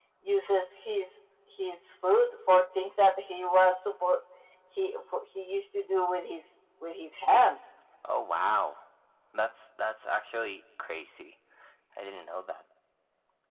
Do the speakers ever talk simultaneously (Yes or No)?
No